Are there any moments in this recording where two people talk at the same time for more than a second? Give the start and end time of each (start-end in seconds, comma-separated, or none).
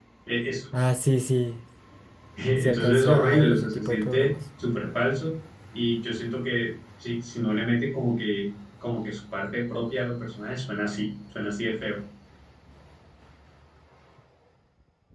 2.6-4.3